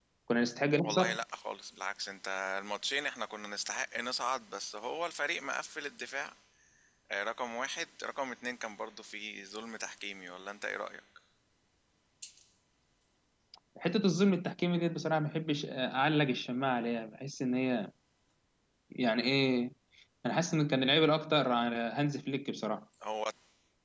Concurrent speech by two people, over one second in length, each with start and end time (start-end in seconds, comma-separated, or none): none